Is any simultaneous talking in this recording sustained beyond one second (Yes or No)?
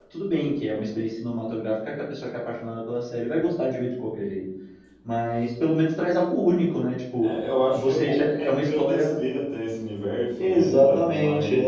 Yes